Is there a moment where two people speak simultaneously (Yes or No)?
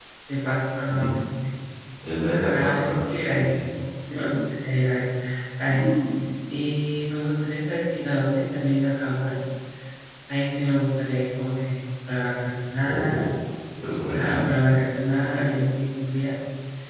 Yes